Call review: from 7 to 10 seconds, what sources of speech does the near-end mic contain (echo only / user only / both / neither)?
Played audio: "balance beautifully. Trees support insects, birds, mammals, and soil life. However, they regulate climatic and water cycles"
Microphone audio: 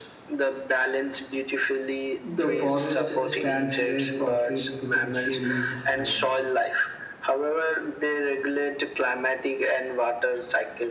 echo only